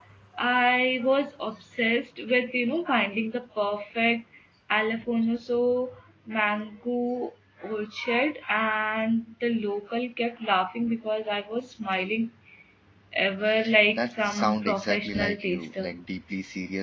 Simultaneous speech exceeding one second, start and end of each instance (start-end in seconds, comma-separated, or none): 13.9-15.9